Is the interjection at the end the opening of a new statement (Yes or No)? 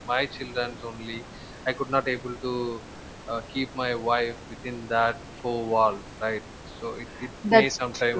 No